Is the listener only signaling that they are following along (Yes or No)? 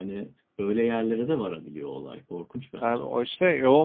No